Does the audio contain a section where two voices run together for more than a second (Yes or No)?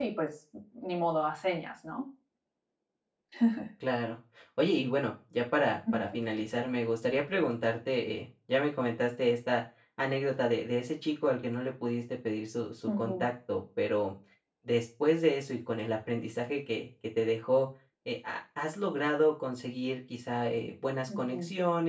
No